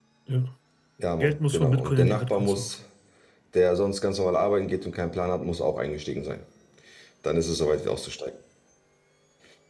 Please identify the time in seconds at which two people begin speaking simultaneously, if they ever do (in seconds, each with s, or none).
1.2 s